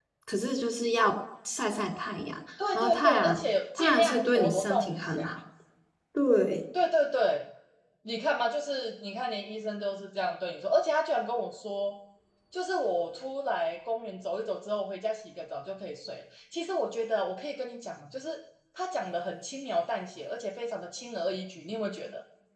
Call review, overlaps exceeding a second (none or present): present